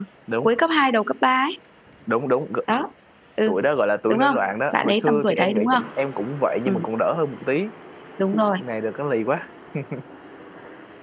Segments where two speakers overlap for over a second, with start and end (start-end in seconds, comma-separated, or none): 4.1-5.8